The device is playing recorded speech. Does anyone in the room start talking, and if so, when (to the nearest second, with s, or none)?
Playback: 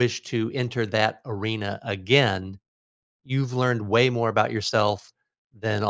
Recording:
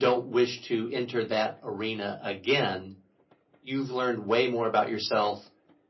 none